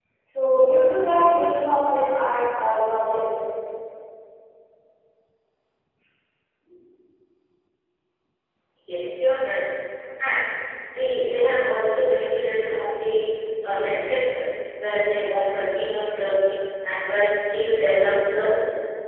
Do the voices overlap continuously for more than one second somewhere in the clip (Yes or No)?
No